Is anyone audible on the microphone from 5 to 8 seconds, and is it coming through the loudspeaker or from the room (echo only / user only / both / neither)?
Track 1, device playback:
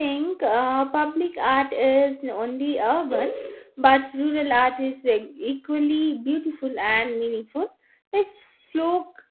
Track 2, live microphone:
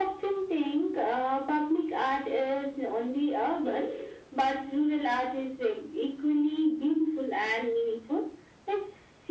echo only